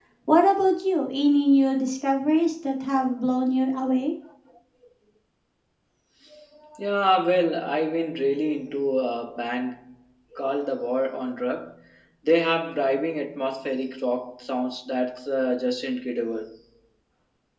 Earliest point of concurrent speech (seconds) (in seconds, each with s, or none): none